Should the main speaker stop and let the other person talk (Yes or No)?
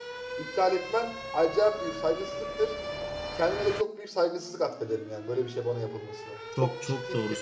Yes